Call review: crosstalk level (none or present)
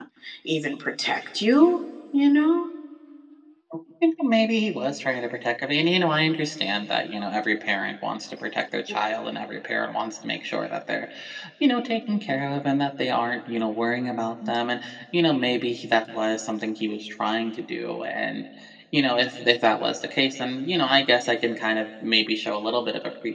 none